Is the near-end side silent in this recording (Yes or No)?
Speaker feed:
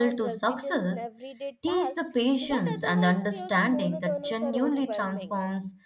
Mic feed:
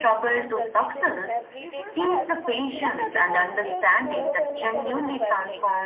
No